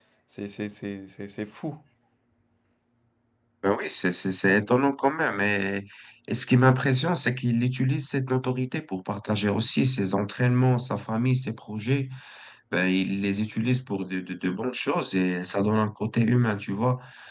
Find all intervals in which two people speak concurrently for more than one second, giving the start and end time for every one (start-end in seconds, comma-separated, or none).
none